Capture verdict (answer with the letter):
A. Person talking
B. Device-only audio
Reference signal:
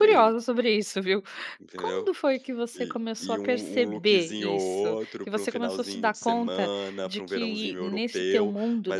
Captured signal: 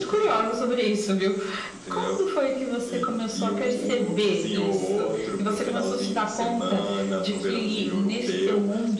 B